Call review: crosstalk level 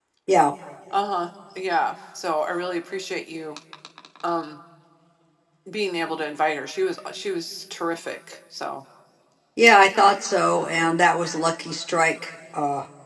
none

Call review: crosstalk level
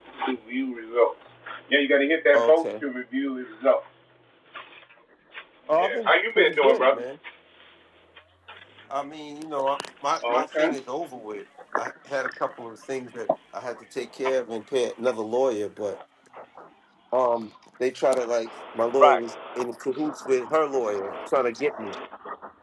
present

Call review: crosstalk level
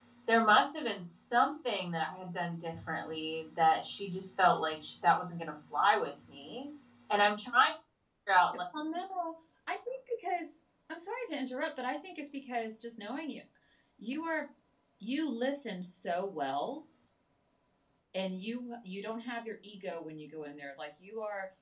none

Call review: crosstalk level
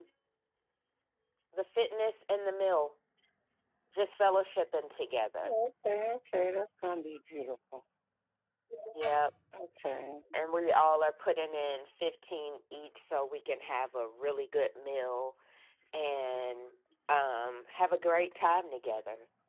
none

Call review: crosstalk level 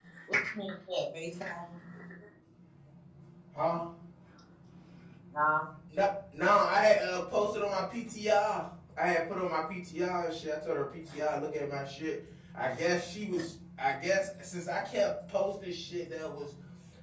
none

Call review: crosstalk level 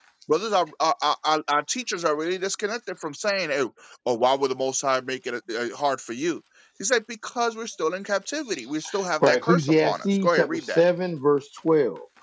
present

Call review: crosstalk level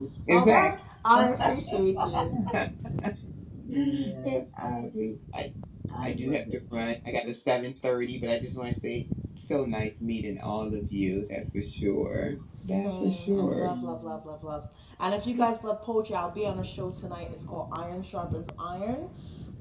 present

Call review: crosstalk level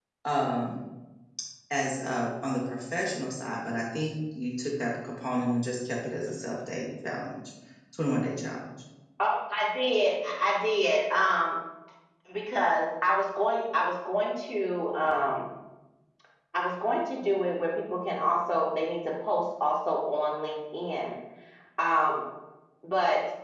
none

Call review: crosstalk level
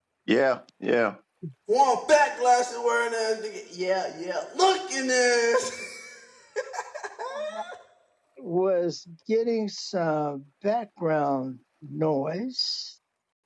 none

